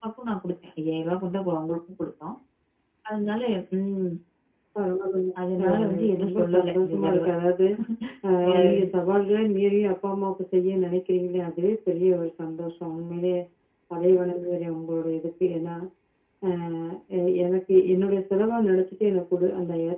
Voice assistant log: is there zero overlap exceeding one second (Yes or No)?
No